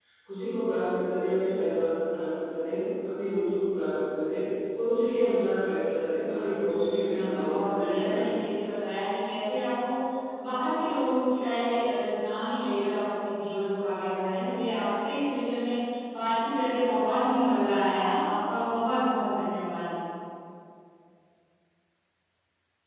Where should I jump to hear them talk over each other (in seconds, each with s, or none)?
6.7 s